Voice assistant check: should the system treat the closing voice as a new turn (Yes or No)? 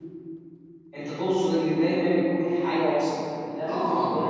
Yes